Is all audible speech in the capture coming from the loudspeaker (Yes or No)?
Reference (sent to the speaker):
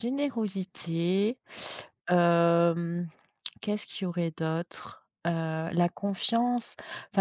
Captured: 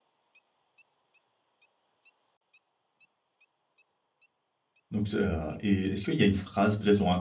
No